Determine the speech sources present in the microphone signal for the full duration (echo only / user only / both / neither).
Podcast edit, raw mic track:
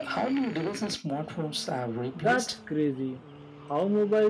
both